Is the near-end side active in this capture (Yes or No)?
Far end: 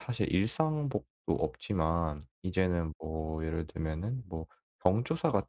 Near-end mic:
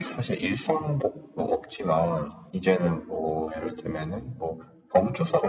No